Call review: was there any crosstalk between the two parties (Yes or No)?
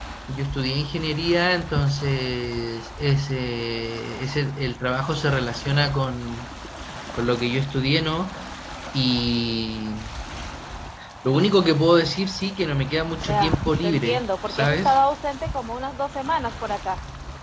Yes